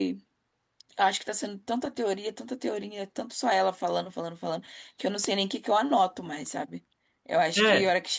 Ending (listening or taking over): listening